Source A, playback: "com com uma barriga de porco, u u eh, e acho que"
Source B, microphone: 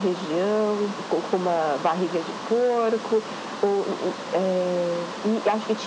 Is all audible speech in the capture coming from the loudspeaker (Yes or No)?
Yes